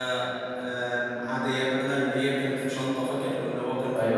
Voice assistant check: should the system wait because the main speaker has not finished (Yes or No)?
No